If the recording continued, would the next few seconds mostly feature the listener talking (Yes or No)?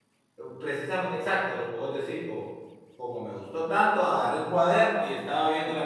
No